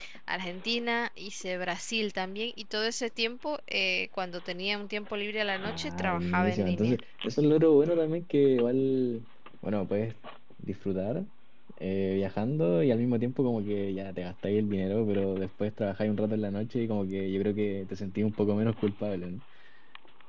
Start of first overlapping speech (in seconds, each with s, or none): 5.6 s